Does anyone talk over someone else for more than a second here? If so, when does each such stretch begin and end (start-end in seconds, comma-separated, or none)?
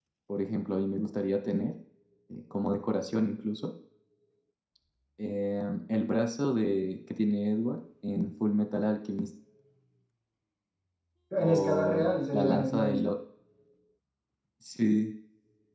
11.4-13.0